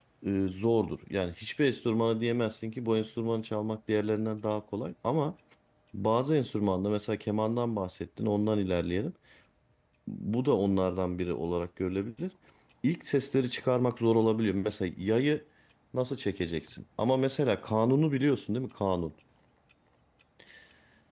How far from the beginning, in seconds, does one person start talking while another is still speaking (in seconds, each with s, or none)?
none